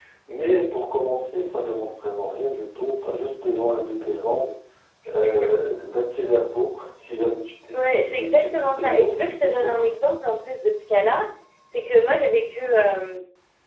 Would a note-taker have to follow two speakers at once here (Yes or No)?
Yes